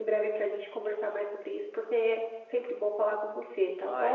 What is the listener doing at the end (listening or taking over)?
taking over